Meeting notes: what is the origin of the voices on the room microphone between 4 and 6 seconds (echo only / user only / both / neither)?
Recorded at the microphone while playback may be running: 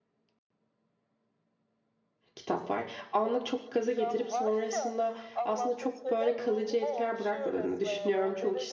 both